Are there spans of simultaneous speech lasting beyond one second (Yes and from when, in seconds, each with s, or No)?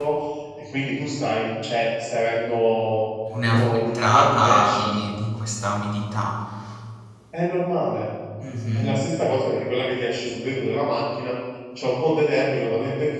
Yes, from 3.5 s